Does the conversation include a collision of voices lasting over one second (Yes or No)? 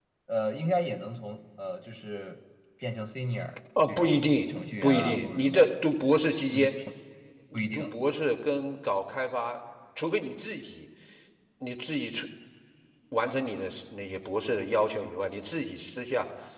Yes